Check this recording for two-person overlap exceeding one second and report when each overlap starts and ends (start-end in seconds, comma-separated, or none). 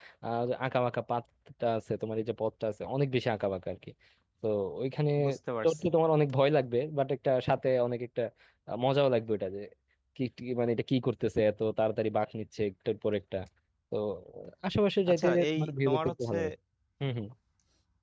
15.1-16.4